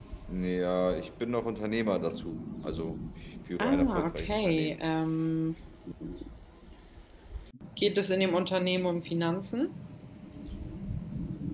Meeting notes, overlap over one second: present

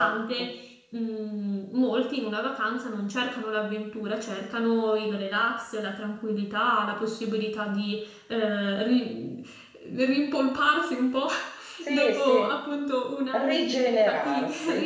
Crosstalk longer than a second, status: present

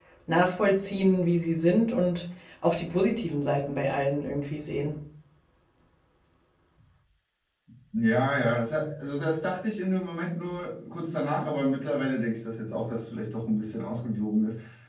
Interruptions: none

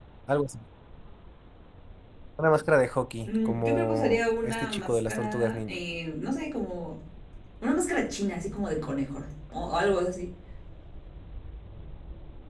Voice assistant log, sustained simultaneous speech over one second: present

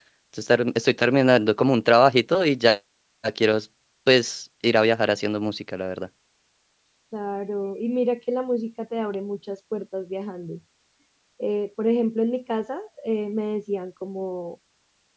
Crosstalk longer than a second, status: none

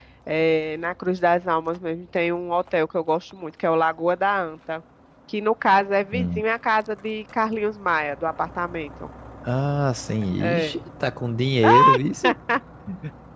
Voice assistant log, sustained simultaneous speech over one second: none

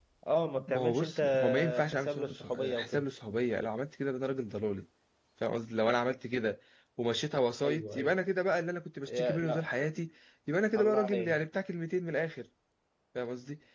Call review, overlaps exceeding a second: present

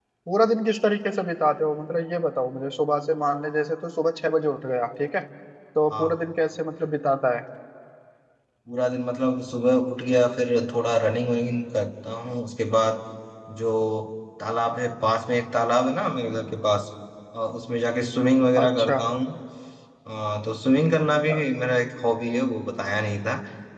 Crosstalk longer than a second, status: none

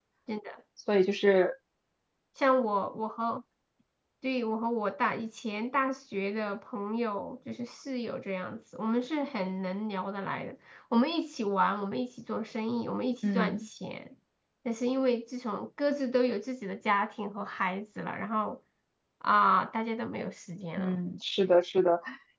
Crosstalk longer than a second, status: none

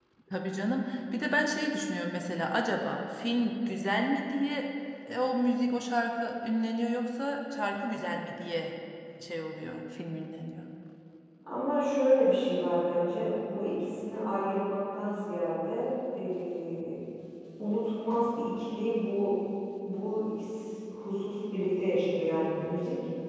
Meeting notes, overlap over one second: none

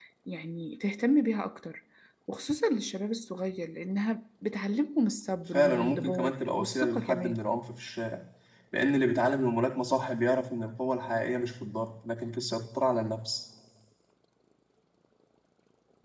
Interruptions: present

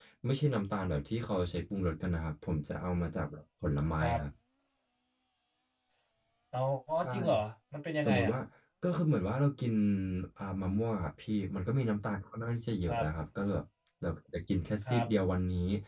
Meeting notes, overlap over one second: none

